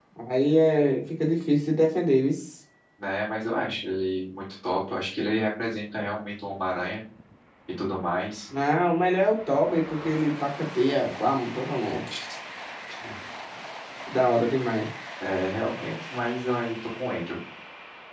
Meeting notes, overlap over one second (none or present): none